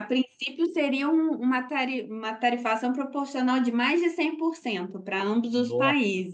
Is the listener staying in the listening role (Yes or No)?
No